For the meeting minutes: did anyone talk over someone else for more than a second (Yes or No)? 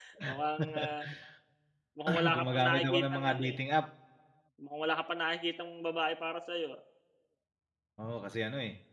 Yes